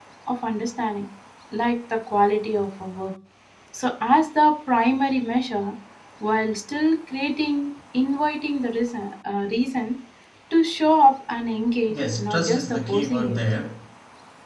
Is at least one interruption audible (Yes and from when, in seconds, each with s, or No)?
Yes, from 11.9 s